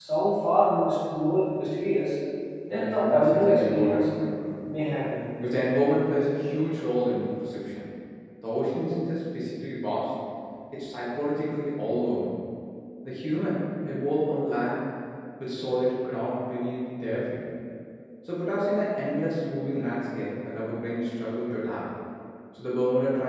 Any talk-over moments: Yes, from 2.7 s

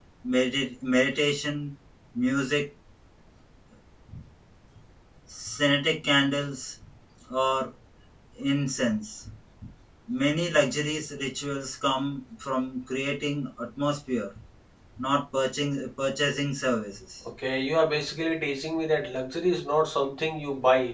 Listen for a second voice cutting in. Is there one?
No

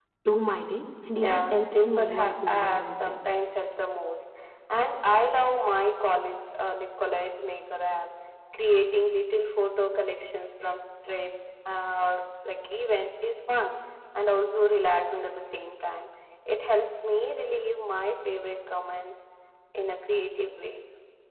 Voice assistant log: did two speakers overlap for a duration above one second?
Yes, from 1.2 s

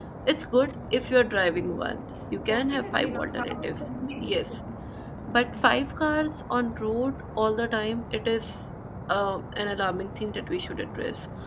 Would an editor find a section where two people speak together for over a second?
Yes, from 2.5 s

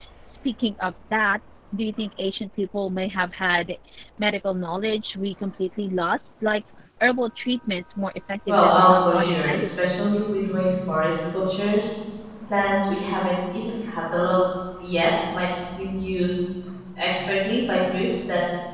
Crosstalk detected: Yes, from 8.5 s

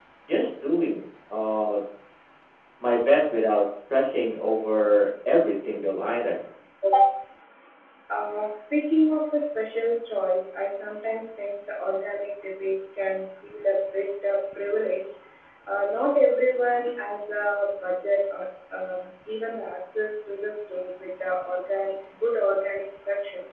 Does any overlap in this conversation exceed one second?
No

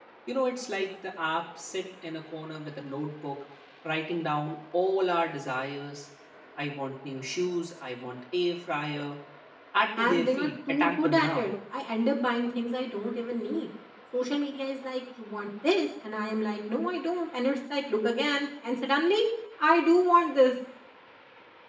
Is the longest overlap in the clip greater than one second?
Yes, from 10.0 s

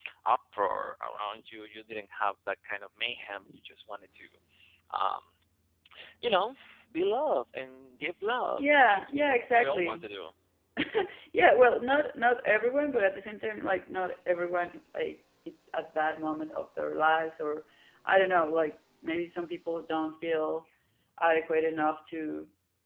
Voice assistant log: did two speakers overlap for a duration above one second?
Yes, from 8.5 s

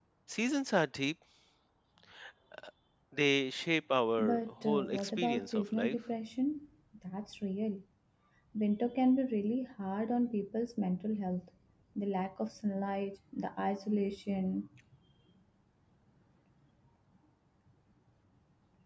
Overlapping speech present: Yes, from 4.2 s

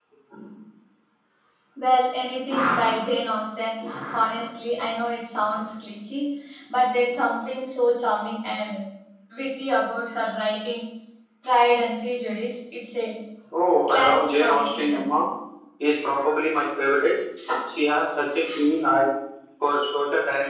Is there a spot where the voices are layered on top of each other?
Yes, from 13.9 s

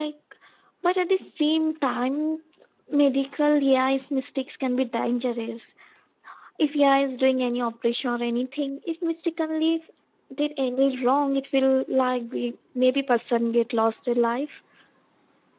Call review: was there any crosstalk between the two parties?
No

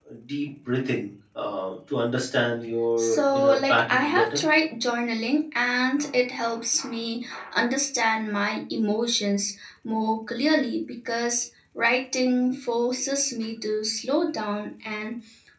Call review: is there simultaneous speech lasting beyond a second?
Yes, from 3.0 s

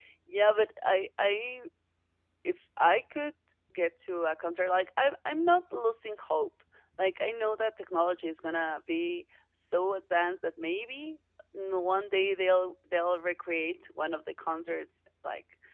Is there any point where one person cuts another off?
No

